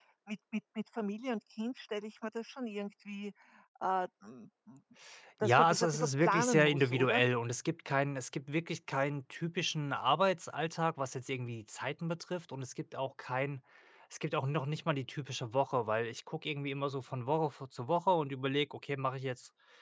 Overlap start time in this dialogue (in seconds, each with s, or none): 5.4 s